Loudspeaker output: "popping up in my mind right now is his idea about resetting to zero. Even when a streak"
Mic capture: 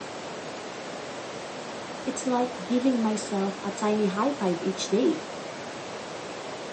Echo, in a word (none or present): none